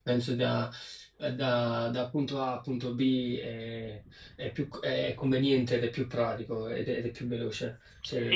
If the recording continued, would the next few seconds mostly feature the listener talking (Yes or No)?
Yes